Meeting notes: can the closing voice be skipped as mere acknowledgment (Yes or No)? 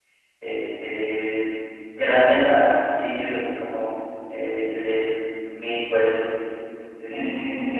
No